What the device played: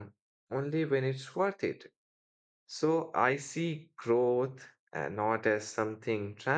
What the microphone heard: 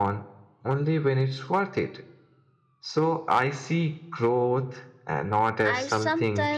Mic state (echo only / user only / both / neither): both